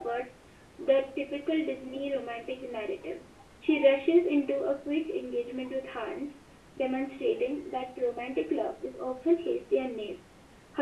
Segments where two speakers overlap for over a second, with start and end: none

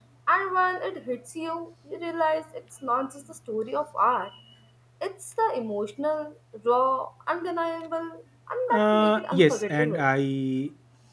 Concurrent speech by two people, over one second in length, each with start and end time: 8.7-10.1

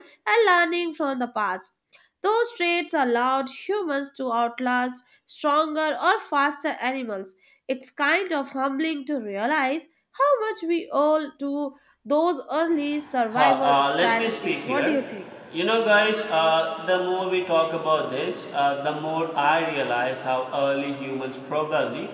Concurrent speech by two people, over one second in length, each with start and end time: 13.3-15.0

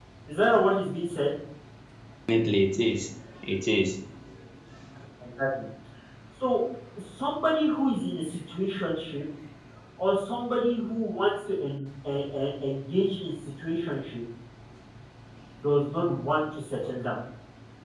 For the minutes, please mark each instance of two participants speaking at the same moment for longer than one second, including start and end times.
none

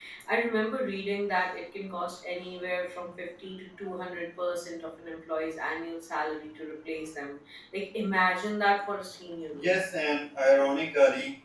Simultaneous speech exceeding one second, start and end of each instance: none

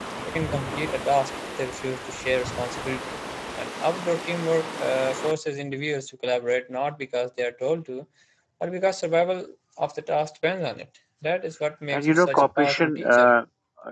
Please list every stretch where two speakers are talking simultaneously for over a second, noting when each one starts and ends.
11.9-13.3

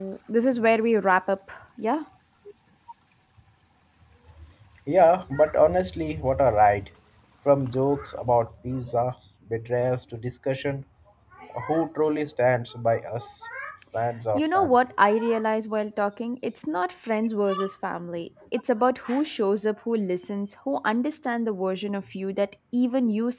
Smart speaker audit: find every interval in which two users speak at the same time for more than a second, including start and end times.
none

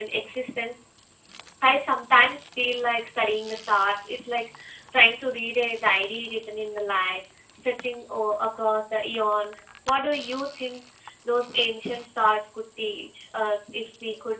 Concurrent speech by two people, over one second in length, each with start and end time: none

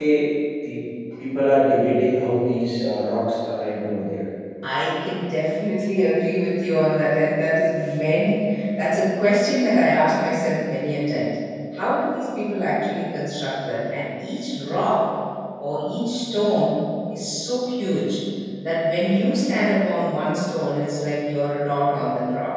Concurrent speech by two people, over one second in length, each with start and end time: none

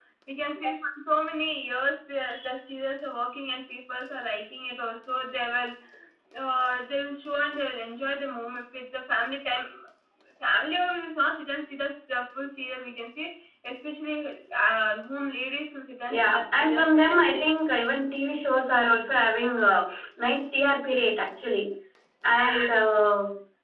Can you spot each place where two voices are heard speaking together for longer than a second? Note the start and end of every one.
16.1-17.4

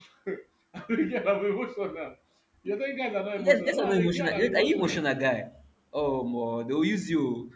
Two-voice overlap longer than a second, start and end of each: 3.4-5.0

